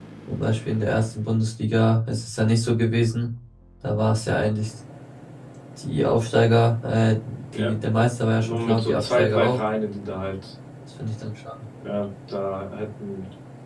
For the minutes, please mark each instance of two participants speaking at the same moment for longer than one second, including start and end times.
8.4-9.6

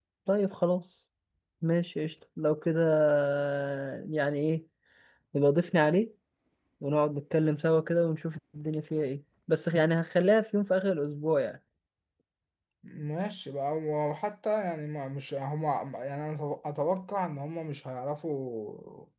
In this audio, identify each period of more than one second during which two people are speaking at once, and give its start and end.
none

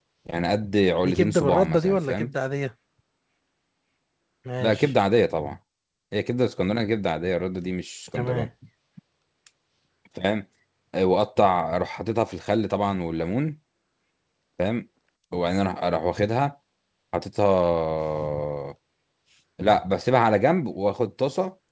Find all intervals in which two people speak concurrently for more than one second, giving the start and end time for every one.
1.0-2.3

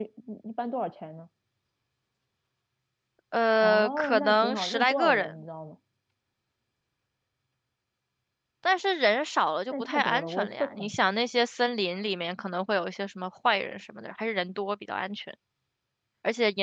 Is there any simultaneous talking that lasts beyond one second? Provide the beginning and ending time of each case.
3.6-5.3, 9.7-10.9

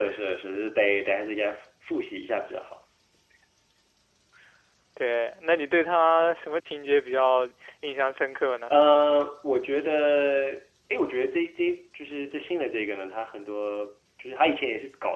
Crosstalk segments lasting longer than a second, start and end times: none

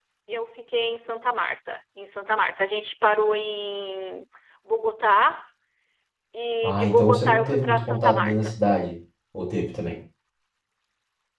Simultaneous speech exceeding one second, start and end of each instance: 6.6-8.5

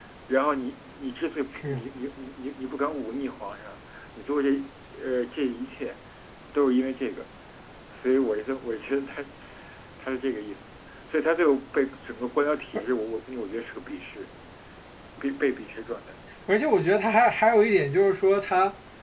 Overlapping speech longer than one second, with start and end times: none

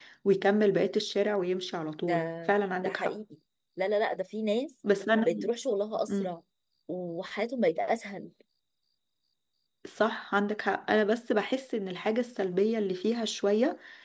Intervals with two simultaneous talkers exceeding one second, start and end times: none

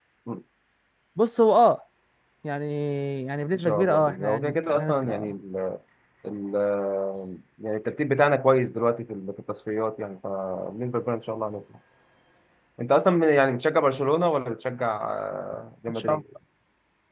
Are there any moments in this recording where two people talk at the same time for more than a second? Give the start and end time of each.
3.6-5.3

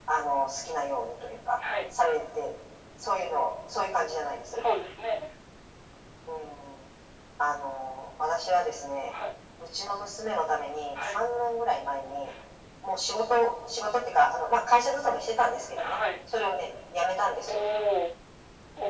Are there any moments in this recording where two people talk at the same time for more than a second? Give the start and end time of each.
none

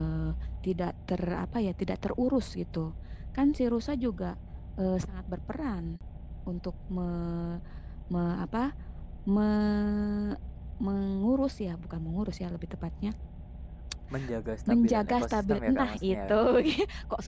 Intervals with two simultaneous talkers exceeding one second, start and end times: 14.7-16.2

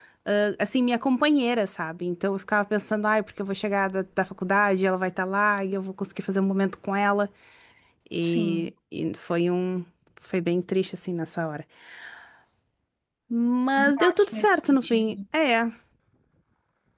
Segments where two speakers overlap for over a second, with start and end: 14.0-15.2

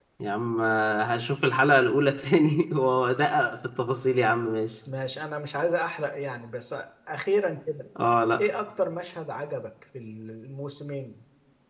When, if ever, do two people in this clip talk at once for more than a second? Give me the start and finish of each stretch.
none

